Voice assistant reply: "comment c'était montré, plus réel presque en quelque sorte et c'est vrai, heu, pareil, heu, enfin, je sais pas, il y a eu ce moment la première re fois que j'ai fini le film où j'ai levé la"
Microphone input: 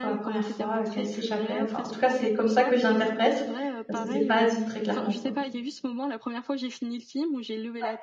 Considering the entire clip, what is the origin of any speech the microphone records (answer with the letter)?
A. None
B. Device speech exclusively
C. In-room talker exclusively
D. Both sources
D